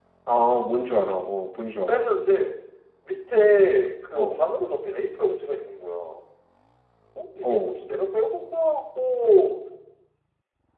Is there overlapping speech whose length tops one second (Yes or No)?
No